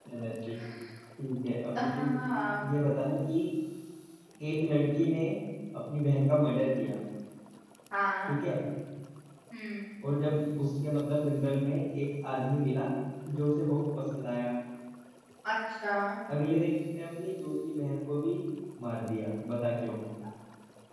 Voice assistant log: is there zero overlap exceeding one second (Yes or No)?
Yes